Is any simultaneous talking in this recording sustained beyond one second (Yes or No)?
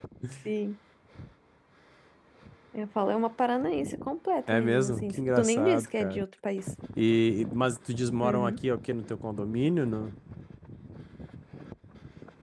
Yes